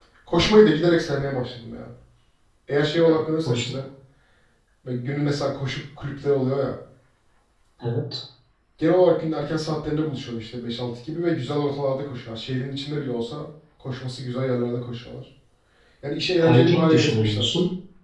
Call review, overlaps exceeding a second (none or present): present